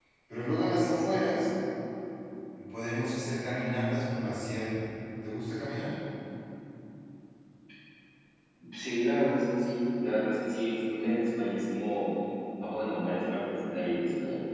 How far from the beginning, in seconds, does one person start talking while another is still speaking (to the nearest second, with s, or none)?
none